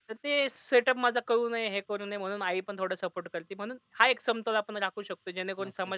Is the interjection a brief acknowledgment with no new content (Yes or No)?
No